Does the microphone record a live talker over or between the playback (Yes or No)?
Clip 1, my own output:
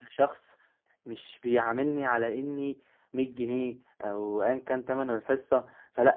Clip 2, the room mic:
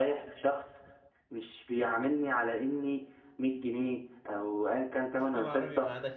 Yes